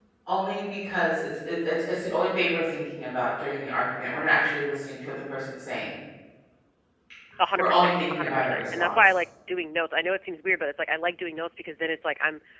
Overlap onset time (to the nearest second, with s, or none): 8 s